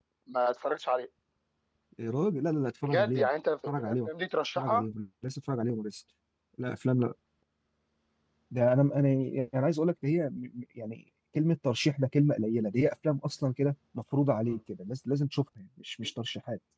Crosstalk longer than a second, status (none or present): none